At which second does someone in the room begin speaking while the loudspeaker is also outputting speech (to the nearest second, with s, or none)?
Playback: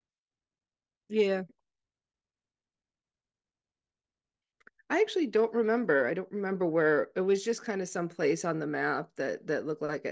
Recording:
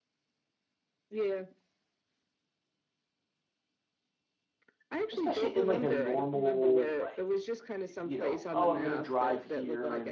5 s